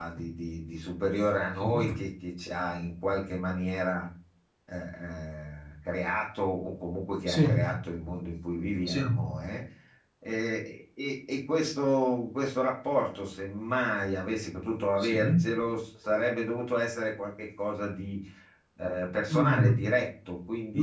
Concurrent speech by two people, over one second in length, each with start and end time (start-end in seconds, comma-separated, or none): none